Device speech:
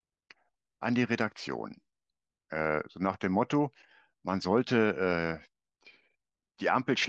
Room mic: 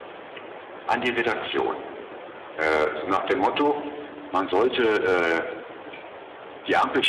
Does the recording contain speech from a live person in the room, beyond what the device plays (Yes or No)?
No